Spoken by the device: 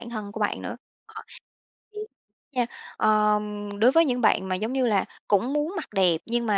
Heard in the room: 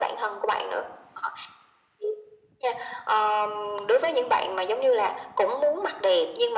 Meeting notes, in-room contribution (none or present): none